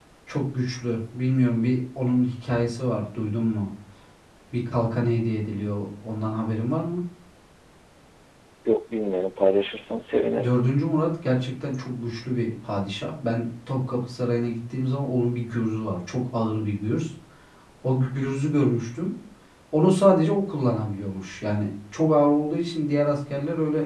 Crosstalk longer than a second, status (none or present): none